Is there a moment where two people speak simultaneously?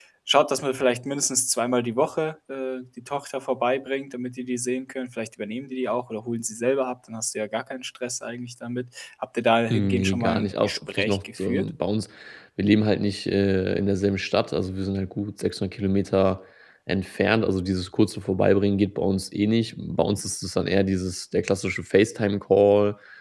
Yes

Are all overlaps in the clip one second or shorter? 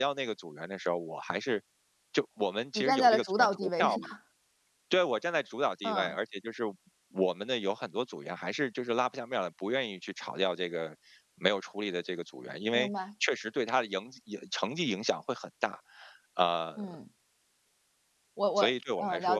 No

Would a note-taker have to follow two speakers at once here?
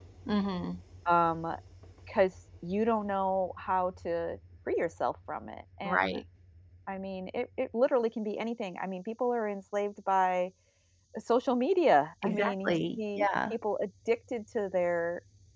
Yes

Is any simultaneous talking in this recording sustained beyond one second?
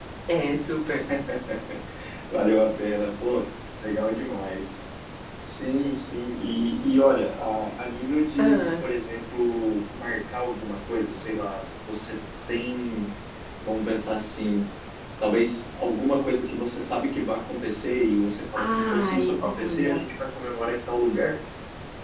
Yes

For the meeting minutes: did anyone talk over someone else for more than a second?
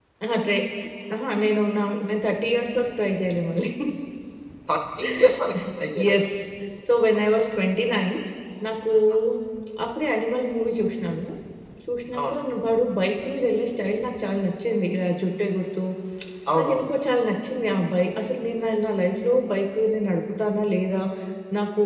No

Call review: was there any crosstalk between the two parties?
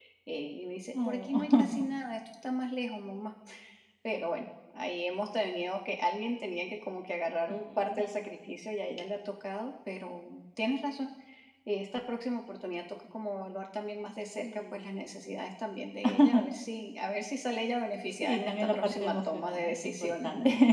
Yes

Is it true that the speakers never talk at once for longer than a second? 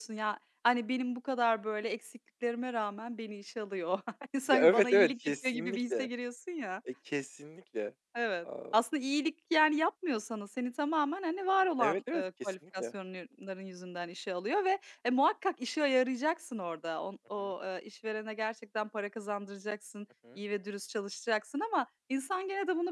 No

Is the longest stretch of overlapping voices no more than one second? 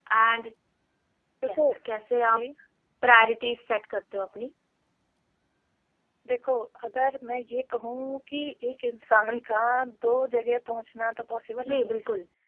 Yes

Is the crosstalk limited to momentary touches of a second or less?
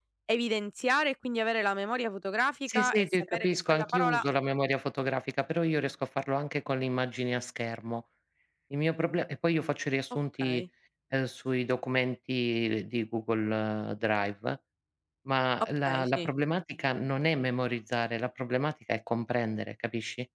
No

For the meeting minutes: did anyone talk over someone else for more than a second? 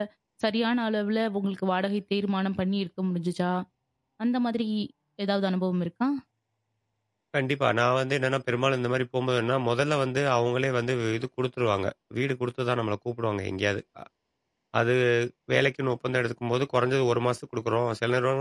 No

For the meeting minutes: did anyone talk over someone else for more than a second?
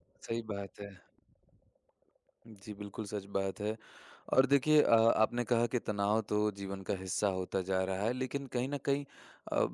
No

